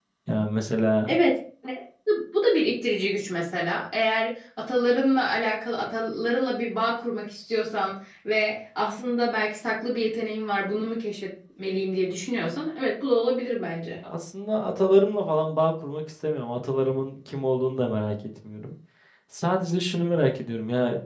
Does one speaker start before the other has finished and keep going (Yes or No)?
No